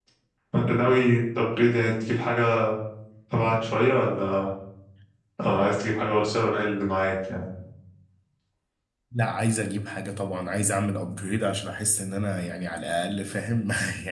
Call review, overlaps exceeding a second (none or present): none